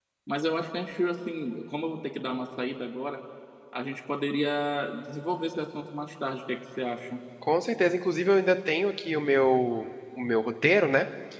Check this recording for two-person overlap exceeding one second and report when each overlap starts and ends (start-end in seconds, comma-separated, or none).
none